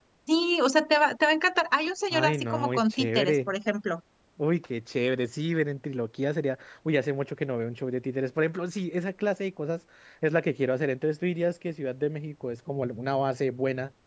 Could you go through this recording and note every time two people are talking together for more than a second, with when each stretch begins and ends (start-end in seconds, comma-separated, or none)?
2.1-3.5